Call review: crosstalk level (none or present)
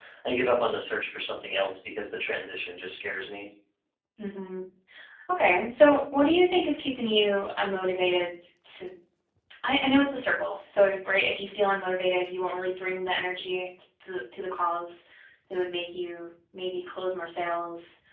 none